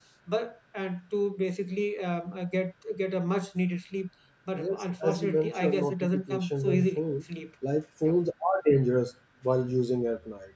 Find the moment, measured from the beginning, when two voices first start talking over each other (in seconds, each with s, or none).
4.6 s